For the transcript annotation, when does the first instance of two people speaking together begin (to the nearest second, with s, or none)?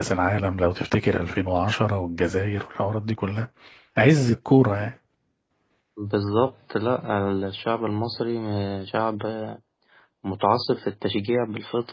none